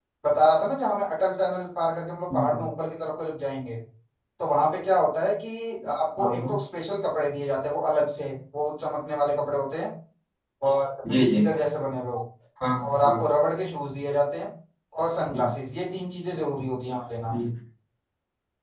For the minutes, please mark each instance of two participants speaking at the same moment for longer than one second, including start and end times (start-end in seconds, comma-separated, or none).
none